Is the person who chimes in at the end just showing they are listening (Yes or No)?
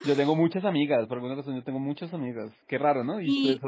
No